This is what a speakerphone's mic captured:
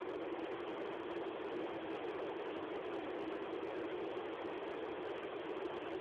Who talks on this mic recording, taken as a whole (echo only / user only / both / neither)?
neither